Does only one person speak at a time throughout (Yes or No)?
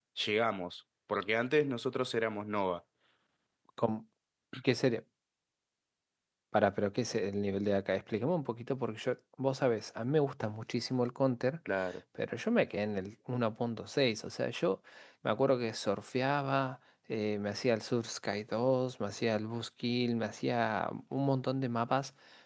Yes